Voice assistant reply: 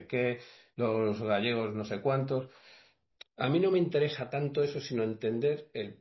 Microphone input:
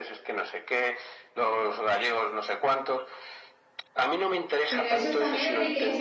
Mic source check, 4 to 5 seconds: both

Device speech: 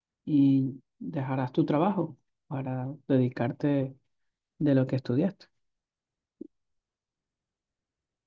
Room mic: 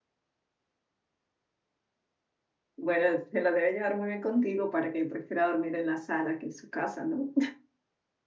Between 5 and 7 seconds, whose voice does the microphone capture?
user only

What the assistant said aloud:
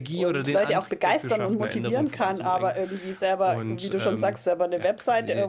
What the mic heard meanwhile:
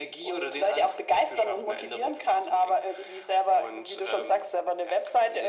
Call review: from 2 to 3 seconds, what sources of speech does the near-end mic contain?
echo only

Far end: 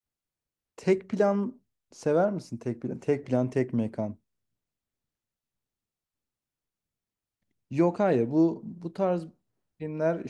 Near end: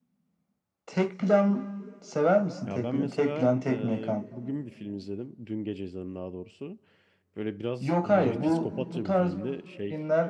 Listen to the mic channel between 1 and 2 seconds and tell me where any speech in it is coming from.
echo only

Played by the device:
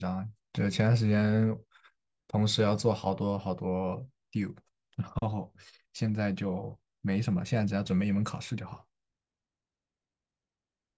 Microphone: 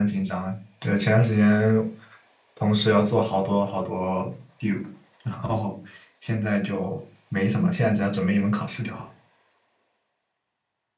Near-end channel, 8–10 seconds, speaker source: echo only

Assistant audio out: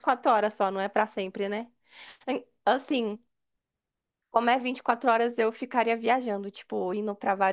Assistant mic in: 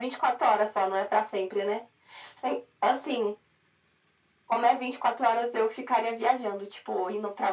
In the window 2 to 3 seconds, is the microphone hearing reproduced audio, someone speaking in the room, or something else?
echo only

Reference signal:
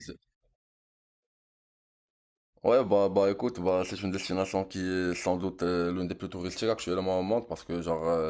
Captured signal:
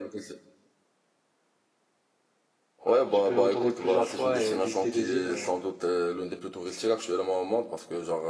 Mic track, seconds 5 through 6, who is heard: both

